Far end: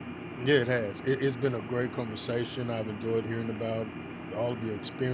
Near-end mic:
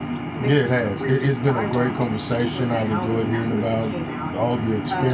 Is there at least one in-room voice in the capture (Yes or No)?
Yes